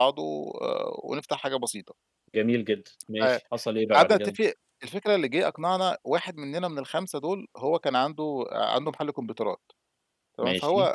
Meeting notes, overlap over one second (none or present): none